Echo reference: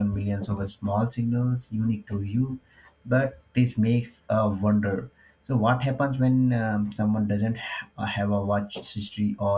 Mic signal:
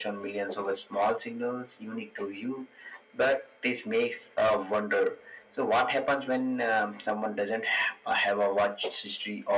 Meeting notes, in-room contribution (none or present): none